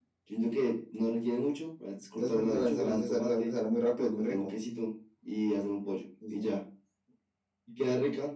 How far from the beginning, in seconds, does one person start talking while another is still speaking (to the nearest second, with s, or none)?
2 s